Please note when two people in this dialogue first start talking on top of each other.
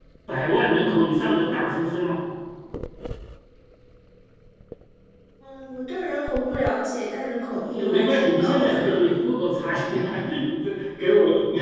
7.6 s

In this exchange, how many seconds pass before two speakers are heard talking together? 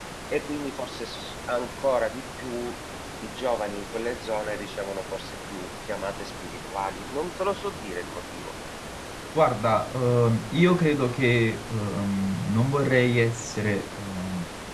none

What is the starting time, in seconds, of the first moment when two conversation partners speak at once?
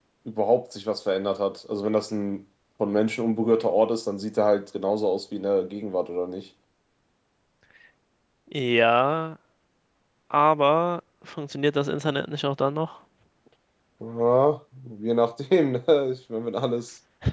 none

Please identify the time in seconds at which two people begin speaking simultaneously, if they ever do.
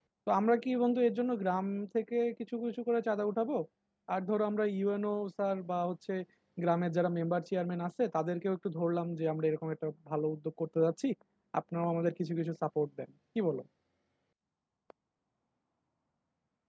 none

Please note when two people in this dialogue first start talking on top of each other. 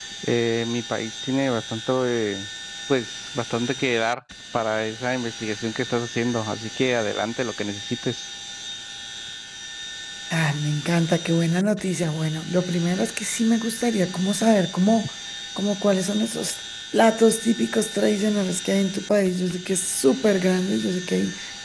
none

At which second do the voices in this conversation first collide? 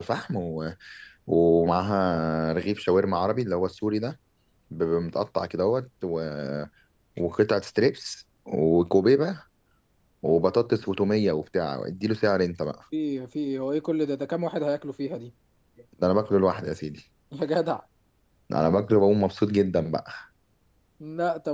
none

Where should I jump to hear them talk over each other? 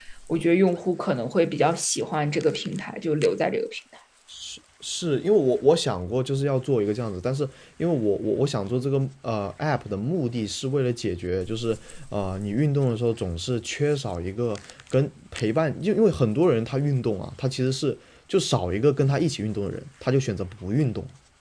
none

